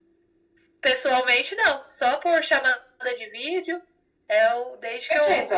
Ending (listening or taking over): listening